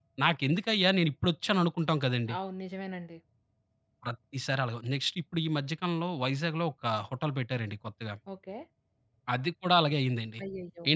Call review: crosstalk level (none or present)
none